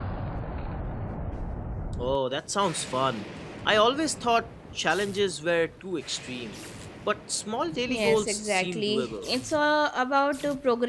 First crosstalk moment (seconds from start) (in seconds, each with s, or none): 7.9 s